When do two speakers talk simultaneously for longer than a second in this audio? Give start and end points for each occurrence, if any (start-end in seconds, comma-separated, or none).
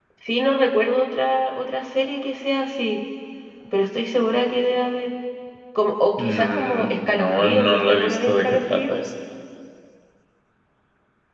6.2-9.0